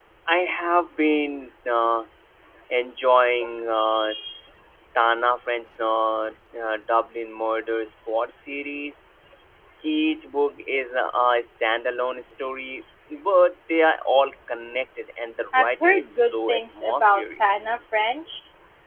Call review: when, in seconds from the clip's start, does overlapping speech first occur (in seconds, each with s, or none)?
15.5 s